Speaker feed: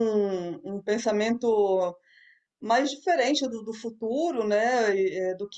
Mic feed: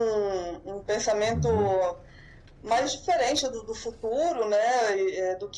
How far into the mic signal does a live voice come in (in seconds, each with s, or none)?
1.3 s